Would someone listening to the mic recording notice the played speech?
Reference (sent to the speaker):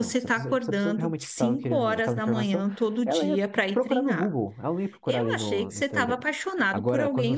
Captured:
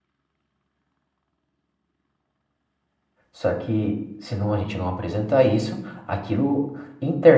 No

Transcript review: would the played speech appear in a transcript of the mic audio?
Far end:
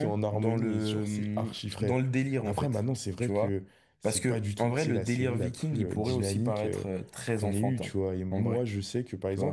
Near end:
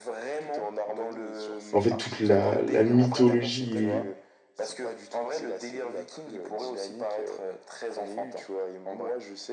Yes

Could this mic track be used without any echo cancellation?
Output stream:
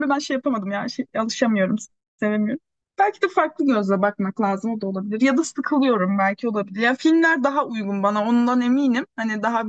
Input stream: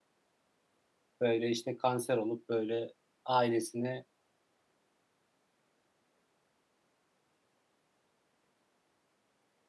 Yes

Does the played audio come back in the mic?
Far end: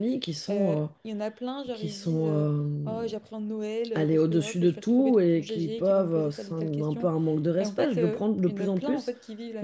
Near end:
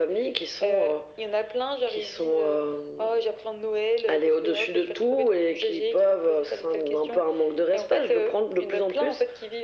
Yes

